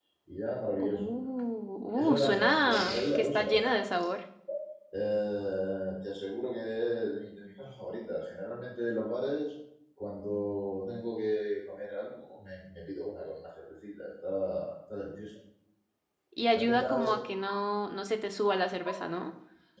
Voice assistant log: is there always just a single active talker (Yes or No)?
No